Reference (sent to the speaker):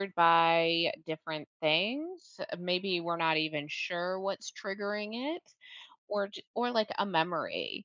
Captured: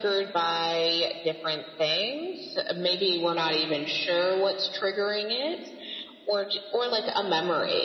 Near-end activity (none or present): none